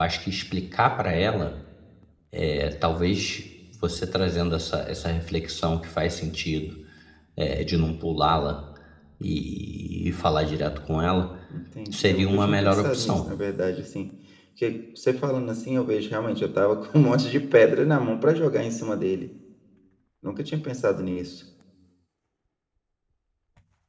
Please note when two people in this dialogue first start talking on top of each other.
11.9 s

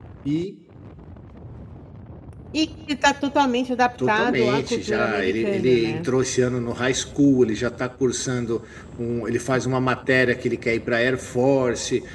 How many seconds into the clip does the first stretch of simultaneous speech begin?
4.0 s

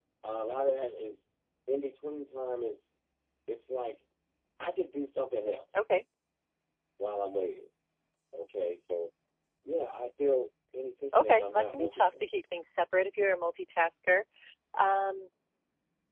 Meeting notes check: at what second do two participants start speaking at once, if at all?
11.1 s

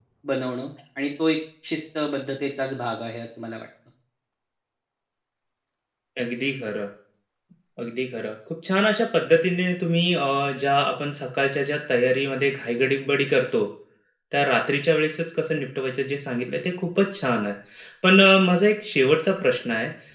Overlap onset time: none

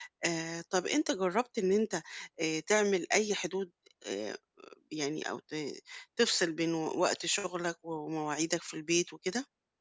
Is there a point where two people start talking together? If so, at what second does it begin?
none

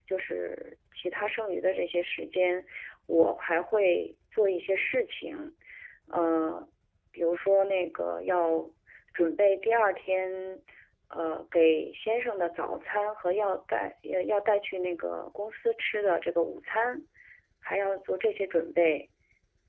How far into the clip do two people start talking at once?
none

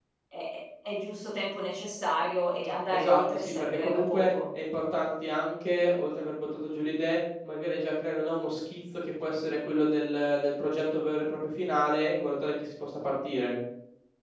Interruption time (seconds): 2.9 s

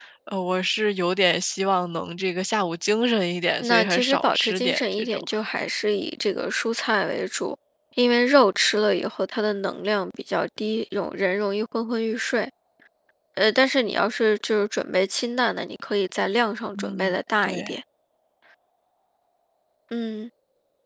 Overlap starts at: 3.6 s

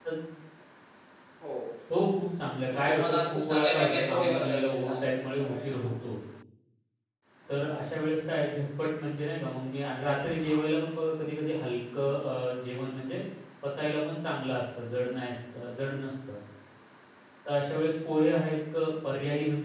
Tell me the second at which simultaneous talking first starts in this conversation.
2.7 s

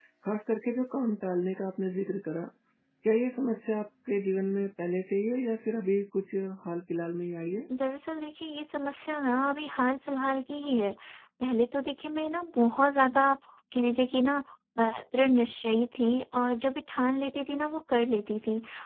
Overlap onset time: none

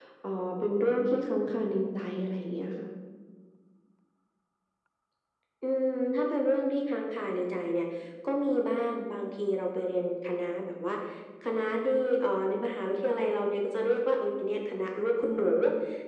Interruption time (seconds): none

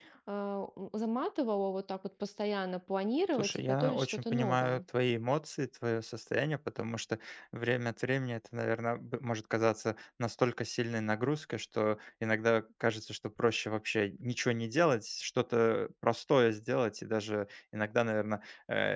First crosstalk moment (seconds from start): 3.4 s

